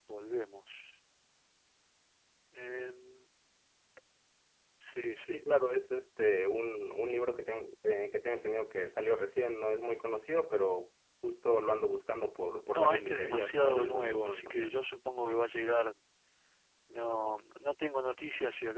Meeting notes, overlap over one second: present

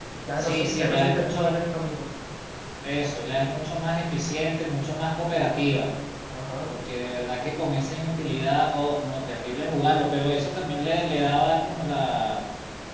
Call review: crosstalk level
present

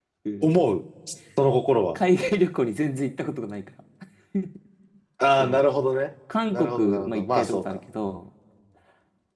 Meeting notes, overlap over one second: present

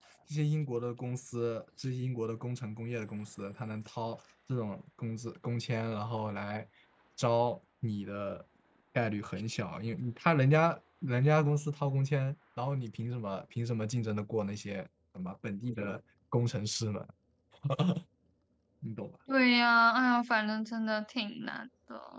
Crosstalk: none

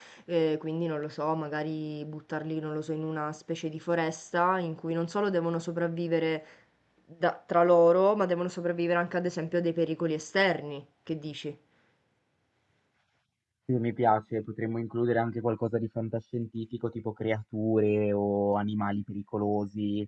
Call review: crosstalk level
none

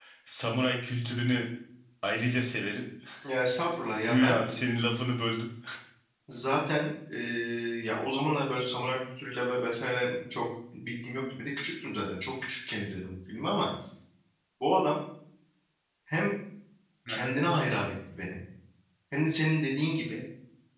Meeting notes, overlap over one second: none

